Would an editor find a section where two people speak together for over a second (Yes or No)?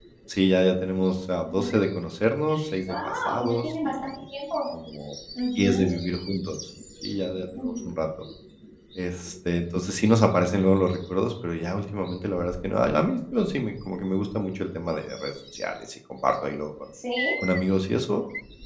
Yes